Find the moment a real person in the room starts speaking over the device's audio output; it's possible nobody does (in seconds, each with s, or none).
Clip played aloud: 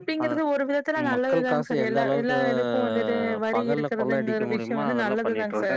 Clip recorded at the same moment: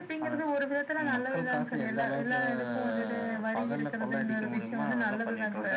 none